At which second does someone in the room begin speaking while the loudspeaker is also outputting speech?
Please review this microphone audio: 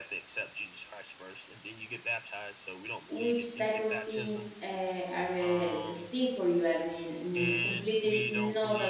3 s

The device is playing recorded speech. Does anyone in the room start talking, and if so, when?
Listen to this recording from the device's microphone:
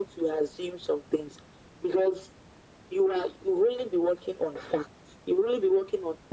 none

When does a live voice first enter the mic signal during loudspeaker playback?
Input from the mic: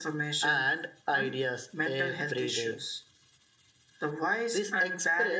none

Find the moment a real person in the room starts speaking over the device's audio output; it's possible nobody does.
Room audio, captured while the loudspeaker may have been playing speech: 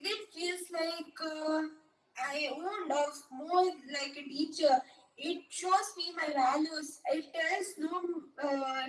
none

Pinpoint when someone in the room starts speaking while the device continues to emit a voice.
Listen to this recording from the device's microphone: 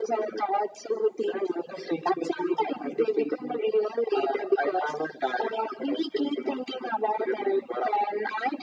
none

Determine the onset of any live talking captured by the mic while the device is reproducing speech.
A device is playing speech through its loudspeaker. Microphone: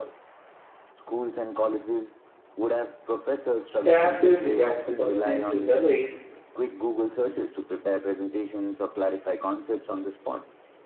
4 s

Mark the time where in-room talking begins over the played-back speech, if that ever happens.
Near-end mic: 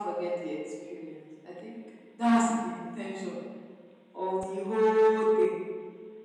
none

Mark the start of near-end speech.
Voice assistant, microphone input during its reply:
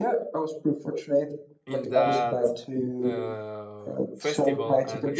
2 s

